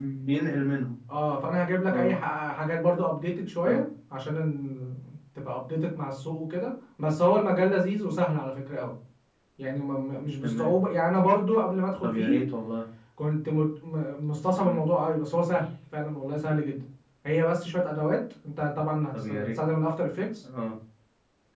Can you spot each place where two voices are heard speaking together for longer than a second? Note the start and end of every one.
none

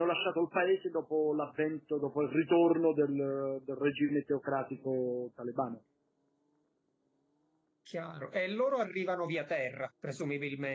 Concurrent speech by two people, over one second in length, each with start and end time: none

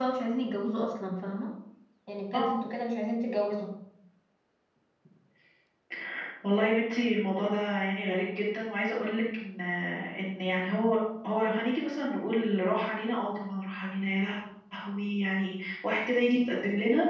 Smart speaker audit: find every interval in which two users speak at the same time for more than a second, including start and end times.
none

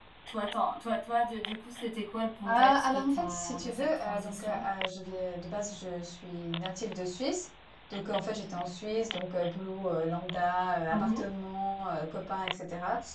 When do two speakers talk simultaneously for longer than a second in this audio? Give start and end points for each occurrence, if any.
2.4-4.6

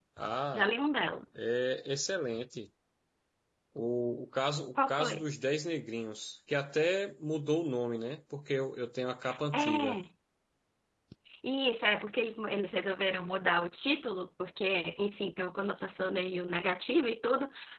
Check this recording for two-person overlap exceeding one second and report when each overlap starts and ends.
none

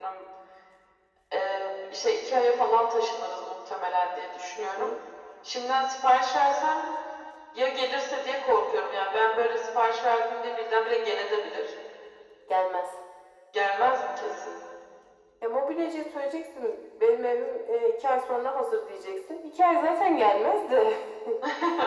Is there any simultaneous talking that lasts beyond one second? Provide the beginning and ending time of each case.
none

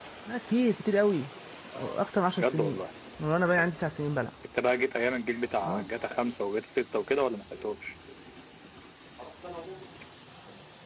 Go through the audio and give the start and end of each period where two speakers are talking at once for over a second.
none

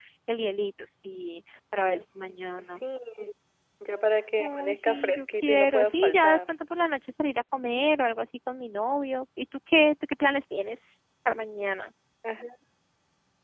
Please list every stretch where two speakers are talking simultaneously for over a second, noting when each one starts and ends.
4.4-6.4

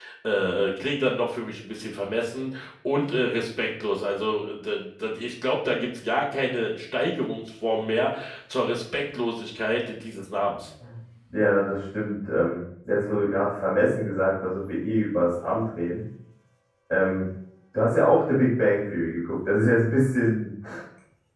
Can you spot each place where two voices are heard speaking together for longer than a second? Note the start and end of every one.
none

